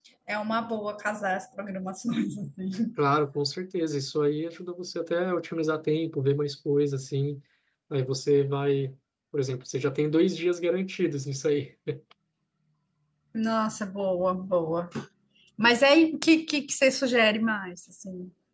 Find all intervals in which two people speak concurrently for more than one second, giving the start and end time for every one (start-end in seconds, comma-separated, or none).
none